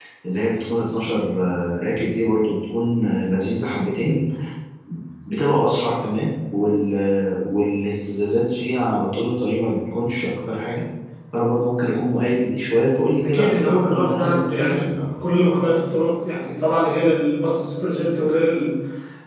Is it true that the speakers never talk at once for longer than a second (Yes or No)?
No